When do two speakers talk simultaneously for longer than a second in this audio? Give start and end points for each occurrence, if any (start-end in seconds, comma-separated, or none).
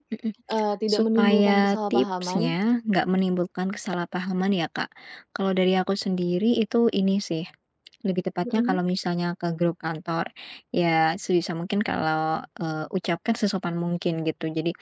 0.9-2.6